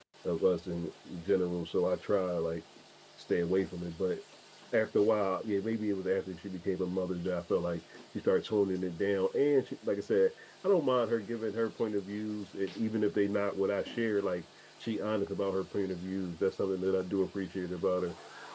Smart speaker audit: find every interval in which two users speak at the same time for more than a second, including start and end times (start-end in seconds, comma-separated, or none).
none